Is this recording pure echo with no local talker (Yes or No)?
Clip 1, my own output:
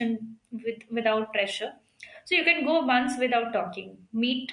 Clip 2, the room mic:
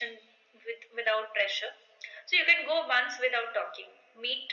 Yes